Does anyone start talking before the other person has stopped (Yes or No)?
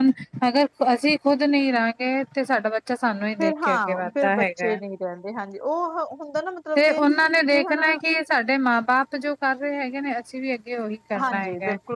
Yes